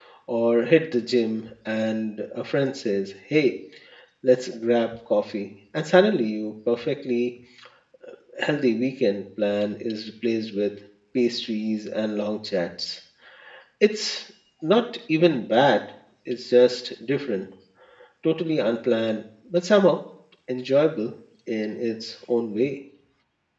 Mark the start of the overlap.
none

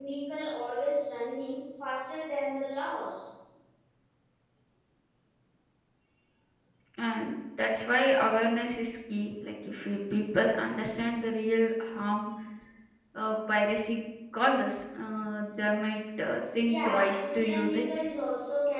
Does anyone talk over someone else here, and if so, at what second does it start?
16.7 s

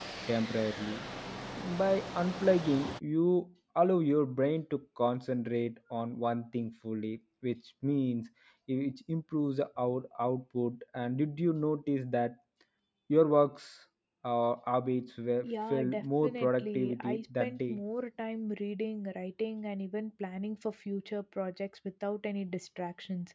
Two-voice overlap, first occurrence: 15.4 s

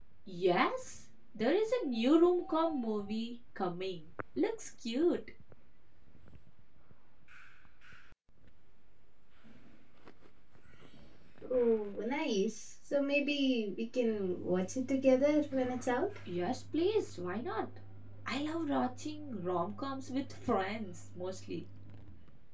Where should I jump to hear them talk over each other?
none

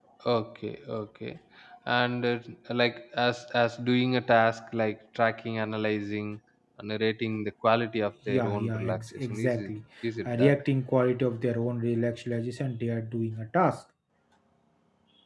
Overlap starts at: 8.3 s

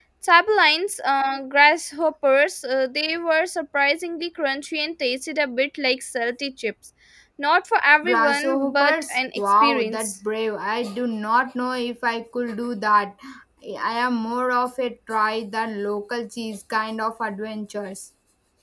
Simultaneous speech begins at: 8.1 s

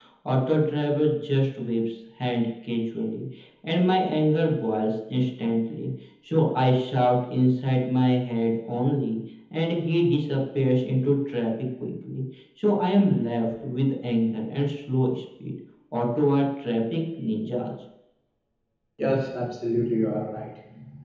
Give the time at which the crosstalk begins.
none

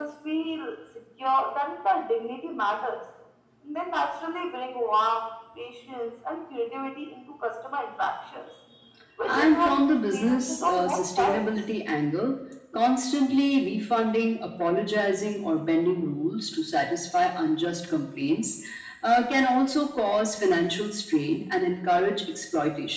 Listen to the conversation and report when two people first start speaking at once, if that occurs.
9.3 s

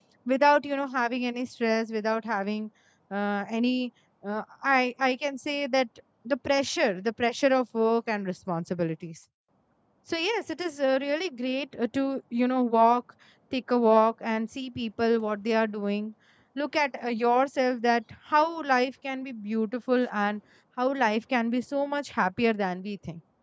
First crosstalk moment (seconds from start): none

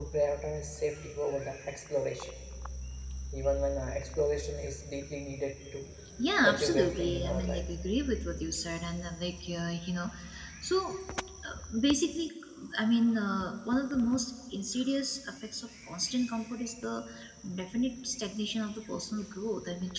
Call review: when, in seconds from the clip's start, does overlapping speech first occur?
6.4 s

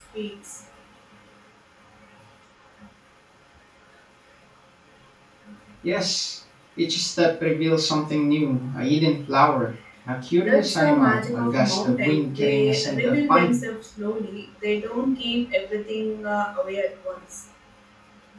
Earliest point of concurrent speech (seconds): 10.4 s

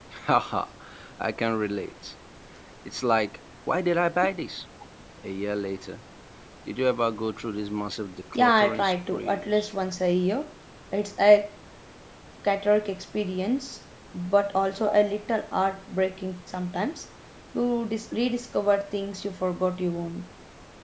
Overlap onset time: 8.3 s

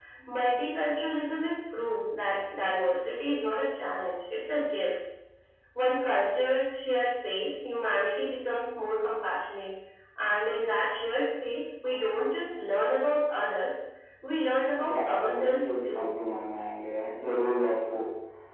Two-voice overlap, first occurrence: 14.8 s

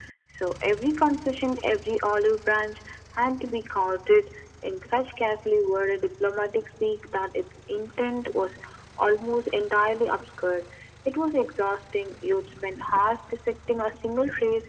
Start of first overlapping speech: none

